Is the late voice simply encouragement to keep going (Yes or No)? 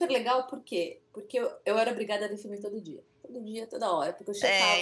No